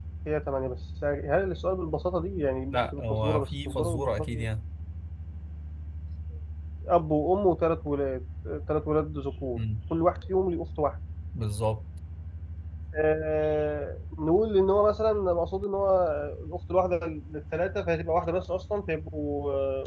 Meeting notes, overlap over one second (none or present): present